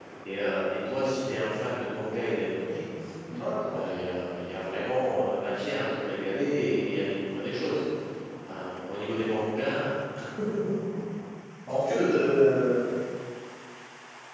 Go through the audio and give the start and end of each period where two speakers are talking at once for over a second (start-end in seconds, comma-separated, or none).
none